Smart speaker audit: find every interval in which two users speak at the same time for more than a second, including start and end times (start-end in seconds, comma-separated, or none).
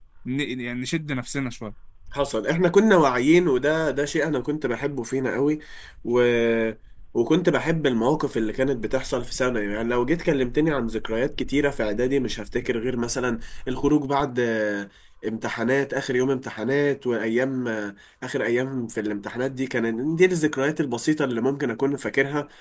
none